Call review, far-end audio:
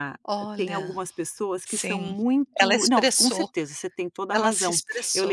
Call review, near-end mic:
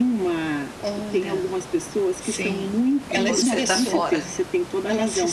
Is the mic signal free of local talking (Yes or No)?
No